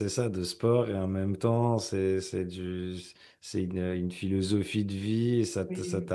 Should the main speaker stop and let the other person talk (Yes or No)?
No